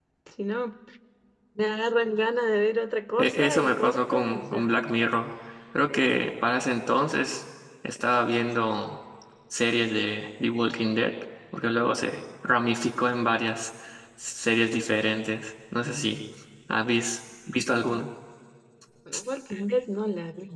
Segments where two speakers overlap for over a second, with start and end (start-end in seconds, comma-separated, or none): 3.2-4.7